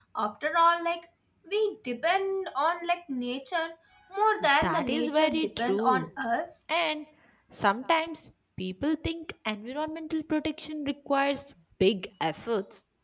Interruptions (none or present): present